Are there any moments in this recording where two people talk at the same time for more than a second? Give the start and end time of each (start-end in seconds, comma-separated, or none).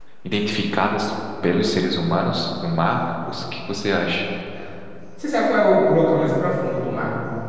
none